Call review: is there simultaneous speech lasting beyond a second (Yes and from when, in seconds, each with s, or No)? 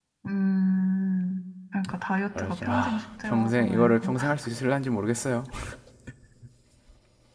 Yes, from 2.4 s